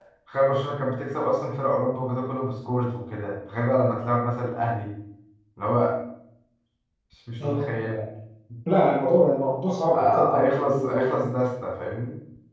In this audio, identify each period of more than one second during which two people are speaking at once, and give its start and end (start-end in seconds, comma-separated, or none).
9.9-11.3